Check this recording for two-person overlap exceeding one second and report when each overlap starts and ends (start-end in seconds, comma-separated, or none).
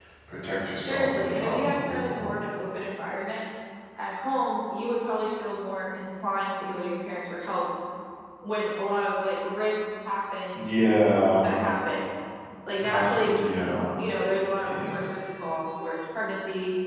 0.8-2.4